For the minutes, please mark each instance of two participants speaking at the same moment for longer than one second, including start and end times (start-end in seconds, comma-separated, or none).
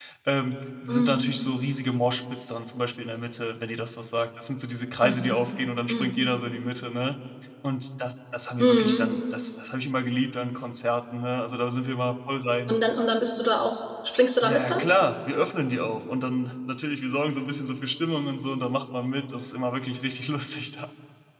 none